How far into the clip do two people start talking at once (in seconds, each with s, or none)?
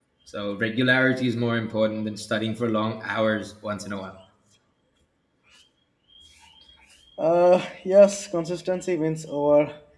none